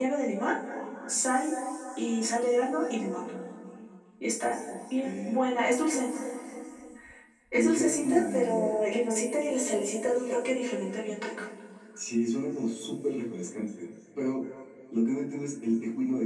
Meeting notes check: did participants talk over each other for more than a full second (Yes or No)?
Yes